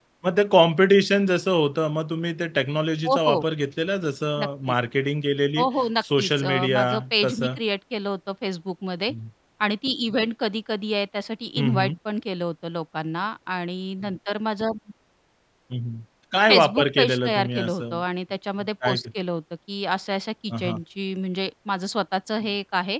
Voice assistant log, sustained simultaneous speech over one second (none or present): present